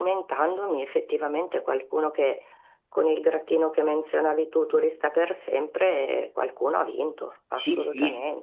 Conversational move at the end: taking over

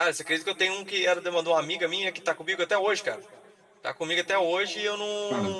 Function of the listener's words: taking over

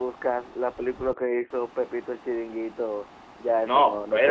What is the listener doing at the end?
taking over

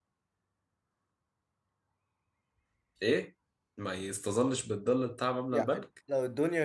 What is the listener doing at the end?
taking over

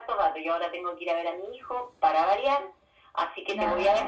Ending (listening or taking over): listening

